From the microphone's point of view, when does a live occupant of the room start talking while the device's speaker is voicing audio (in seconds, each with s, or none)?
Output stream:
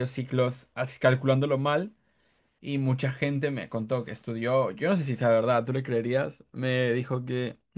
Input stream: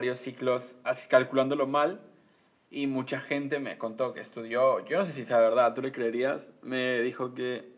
none